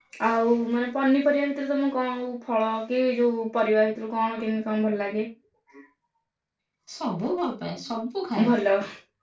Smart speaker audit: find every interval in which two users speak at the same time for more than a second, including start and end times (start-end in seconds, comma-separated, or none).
none